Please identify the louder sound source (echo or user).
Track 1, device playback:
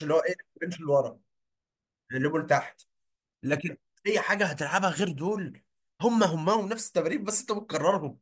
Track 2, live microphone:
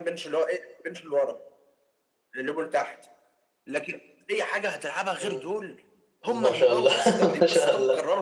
user